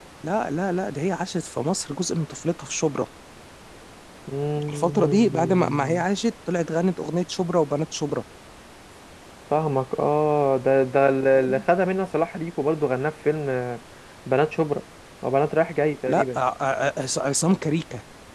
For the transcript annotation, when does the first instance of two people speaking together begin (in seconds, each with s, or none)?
4.7 s